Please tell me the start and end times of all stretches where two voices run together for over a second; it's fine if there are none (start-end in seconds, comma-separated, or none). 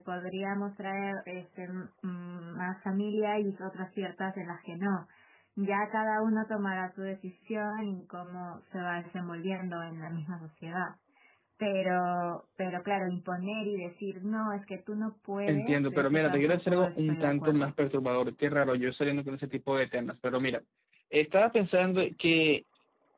15.5-17.7